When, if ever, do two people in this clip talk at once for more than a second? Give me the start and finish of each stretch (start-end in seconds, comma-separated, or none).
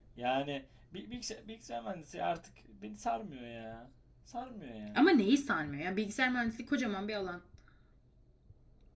none